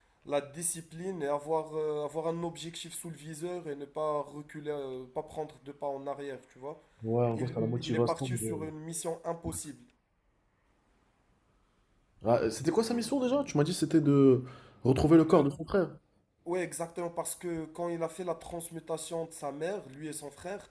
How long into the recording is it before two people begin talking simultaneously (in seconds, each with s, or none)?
7.3 s